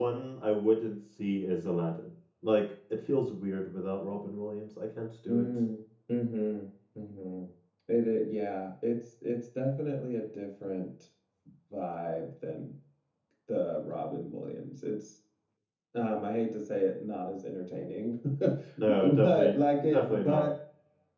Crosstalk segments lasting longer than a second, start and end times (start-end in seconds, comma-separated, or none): 18.8-20.5